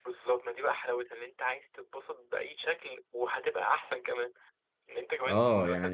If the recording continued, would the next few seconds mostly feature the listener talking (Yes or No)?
Yes